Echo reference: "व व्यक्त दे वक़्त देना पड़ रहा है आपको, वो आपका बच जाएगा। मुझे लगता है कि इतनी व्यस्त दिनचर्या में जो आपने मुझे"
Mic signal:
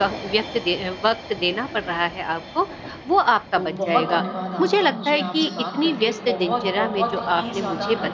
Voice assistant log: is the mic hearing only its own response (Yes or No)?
No